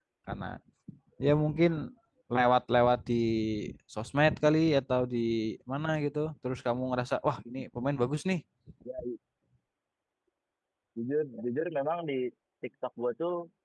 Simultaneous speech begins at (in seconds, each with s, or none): none